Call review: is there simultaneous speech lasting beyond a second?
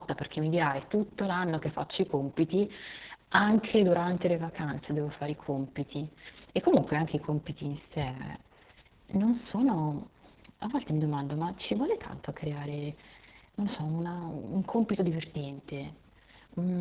No

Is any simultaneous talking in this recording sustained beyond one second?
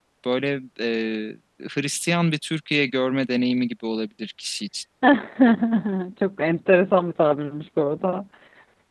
No

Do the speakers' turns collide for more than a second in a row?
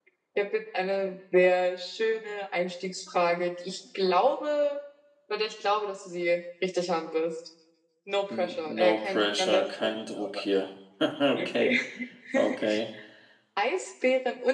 Yes, from 8.4 s

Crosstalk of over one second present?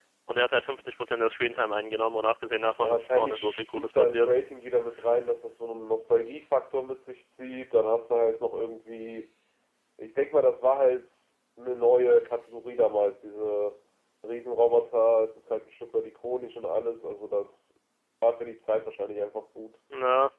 Yes, from 2.8 s

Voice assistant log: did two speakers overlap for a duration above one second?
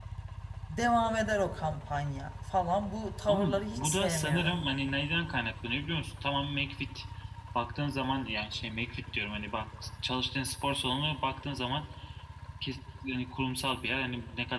Yes, from 3.3 s

